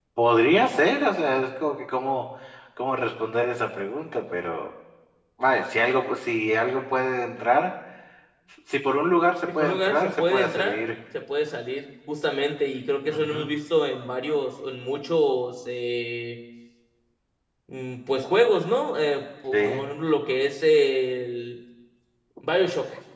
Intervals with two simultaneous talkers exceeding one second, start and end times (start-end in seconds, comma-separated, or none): 9.5-10.8